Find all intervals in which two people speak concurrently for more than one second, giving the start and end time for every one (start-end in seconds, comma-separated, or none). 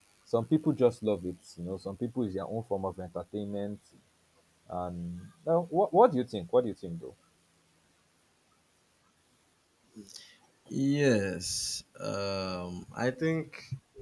none